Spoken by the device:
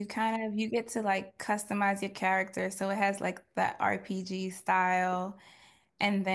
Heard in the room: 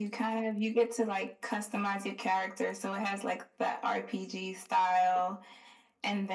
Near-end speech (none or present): none